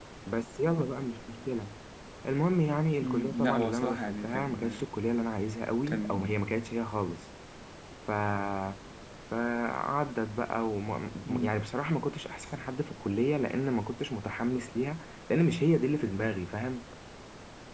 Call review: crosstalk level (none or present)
present